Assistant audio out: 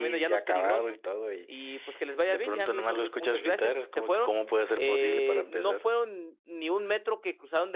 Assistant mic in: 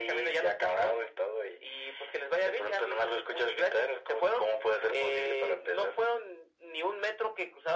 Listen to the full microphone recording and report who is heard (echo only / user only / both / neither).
echo only